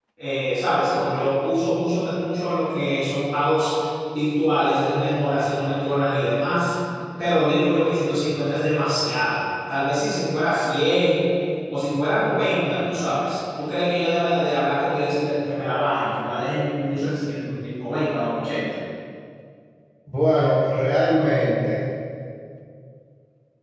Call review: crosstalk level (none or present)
none